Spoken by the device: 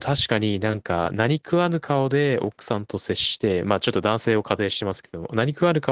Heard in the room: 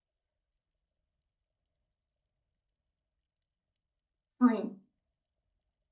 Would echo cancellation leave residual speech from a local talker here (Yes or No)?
Yes